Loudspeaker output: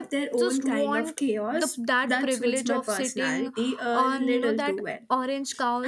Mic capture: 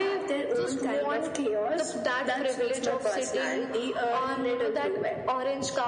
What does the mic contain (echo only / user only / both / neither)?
echo only